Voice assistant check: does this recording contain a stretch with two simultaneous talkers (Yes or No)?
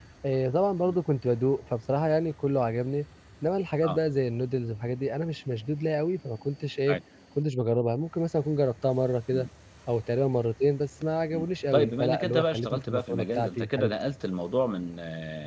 Yes